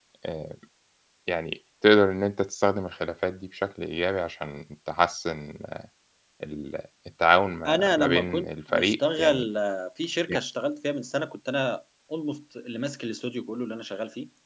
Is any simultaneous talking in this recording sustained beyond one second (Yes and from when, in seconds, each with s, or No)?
Yes, from 7.7 s